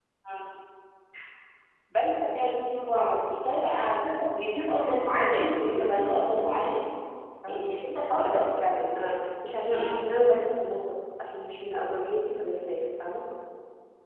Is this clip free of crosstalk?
No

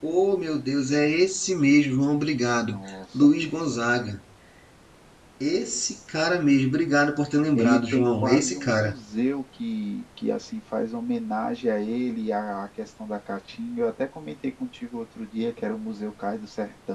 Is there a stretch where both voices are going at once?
Yes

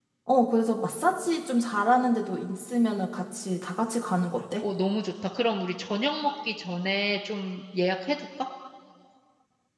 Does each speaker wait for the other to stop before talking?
Yes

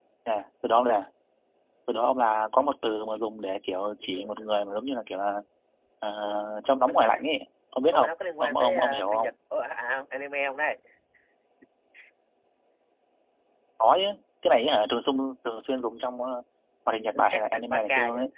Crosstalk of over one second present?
Yes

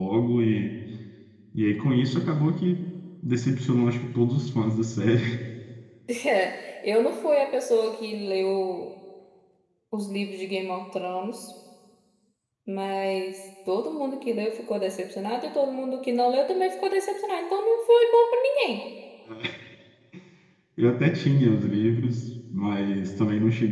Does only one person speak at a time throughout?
Yes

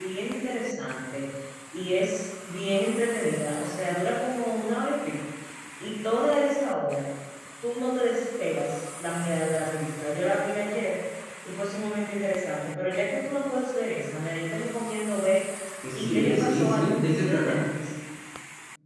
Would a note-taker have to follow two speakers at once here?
Yes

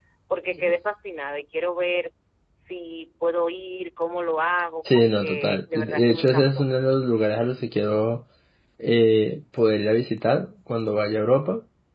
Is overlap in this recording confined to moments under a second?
No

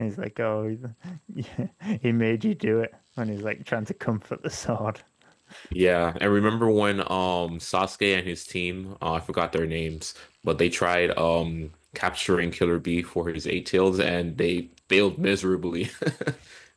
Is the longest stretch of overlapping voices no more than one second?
Yes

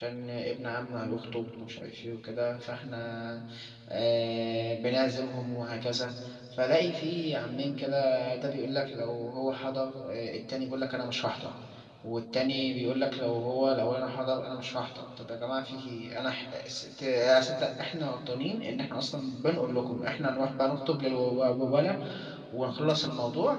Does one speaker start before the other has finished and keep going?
No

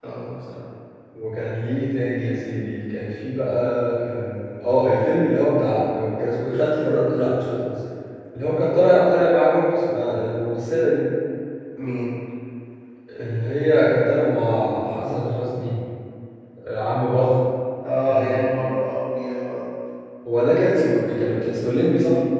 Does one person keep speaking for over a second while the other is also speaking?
No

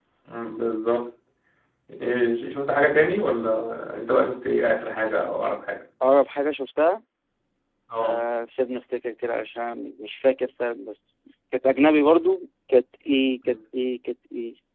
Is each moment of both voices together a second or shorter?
Yes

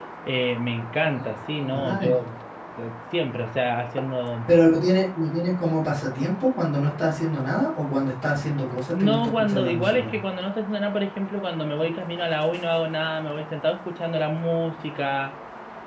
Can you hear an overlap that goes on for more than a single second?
Yes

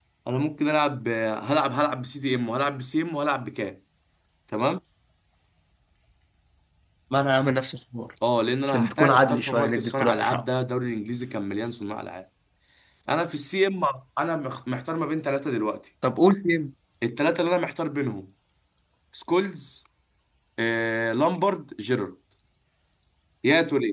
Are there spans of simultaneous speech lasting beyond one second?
Yes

